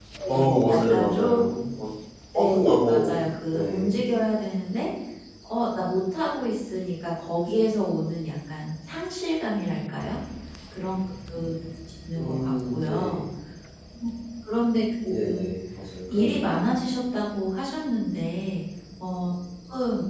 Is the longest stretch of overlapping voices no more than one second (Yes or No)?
No